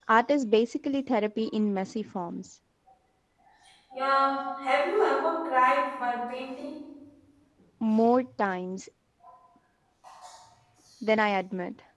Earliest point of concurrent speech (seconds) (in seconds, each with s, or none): none